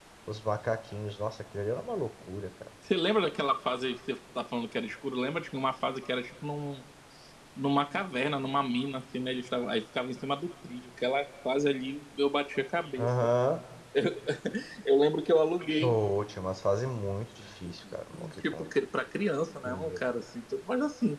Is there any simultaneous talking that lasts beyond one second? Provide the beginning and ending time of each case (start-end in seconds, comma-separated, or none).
none